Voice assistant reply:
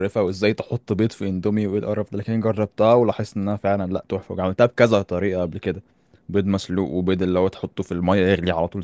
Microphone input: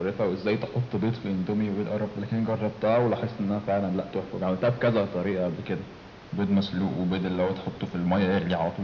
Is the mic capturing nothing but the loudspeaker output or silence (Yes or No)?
Yes